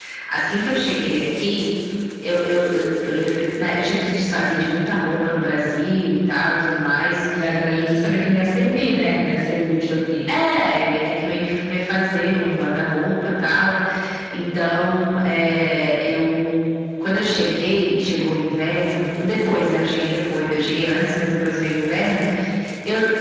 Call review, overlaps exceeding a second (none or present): none